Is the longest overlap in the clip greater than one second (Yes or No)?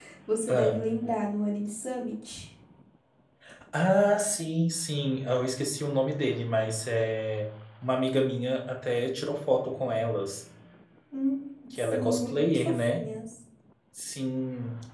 Yes